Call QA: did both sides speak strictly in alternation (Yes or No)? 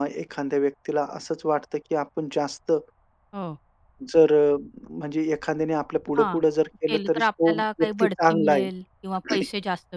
No